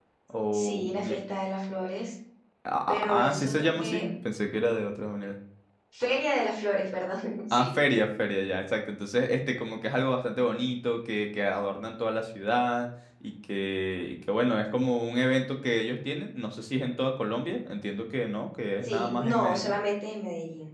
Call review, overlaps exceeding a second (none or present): present